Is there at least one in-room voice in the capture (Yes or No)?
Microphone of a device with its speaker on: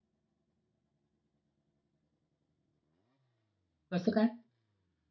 Yes